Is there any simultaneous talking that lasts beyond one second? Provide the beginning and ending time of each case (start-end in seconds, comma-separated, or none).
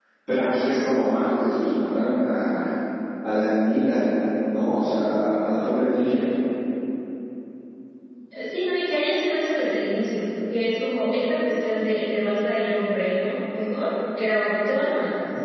none